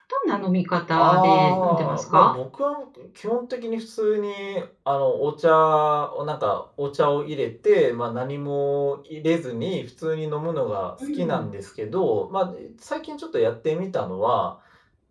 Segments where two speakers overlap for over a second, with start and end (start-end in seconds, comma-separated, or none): 1.0-2.3